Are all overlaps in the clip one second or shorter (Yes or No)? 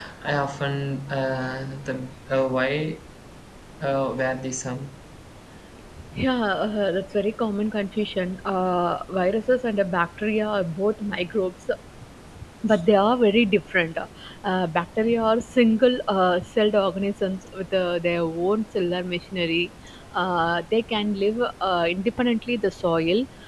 Yes